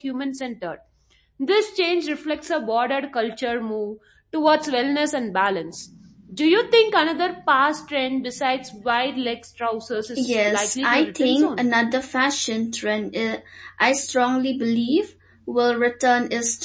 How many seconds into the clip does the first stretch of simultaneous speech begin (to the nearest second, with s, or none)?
10 s